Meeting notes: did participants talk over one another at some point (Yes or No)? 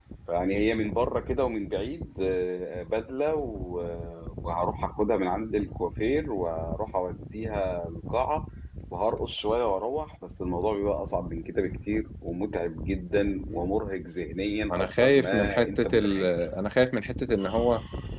Yes